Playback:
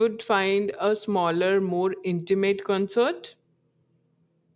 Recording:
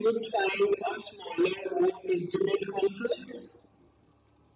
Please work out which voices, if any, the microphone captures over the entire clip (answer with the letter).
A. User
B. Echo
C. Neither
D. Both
B